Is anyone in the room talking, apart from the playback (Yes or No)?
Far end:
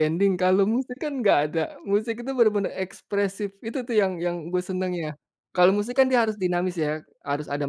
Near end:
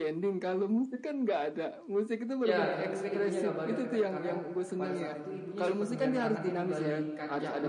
Yes